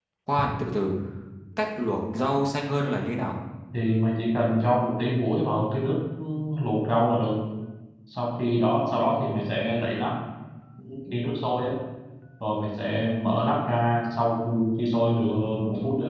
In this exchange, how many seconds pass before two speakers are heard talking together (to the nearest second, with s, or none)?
none